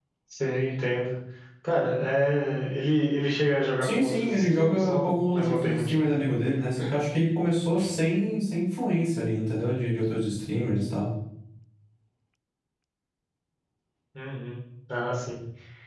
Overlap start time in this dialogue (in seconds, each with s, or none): 3.8 s